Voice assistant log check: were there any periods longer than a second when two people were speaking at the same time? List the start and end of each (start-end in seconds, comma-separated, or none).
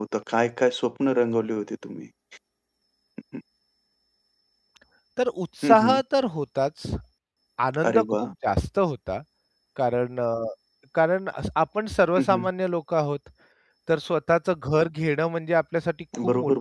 none